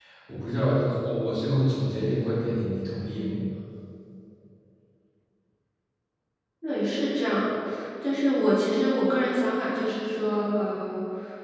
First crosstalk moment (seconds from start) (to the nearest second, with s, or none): none